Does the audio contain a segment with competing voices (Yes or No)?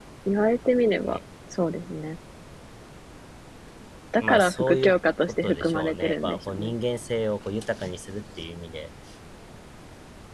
Yes